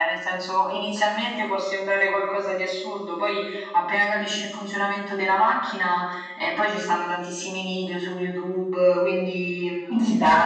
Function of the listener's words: listening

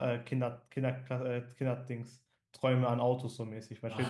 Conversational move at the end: taking over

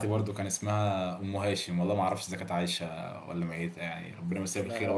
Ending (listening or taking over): taking over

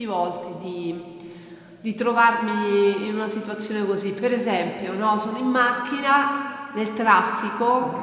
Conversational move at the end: listening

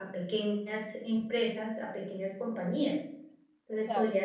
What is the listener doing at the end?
listening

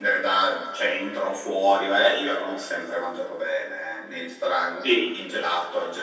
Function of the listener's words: listening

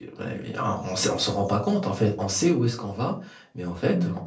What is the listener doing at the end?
listening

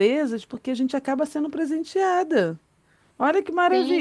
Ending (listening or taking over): taking over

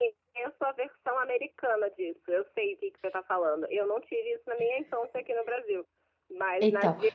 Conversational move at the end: listening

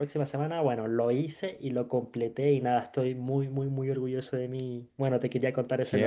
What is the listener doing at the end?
taking over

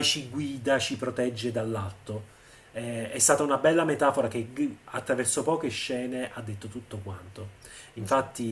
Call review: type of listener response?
listening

